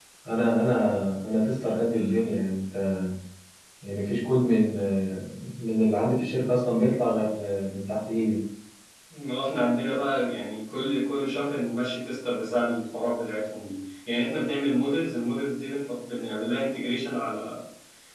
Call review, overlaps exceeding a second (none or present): none